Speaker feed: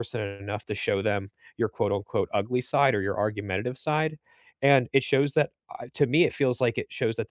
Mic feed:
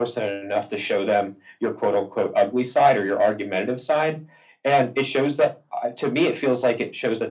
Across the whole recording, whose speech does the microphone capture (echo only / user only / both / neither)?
echo only